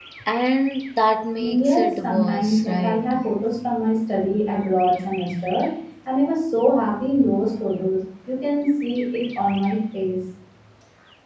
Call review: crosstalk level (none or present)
present